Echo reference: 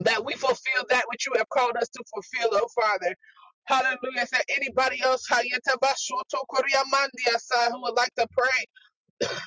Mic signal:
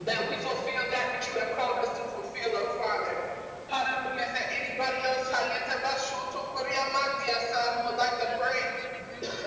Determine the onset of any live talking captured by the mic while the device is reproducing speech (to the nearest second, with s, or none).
8 s